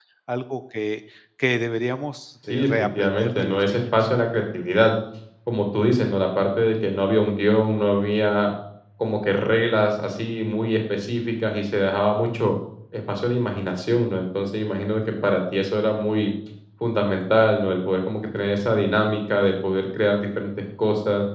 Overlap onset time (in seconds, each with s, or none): 2.5 s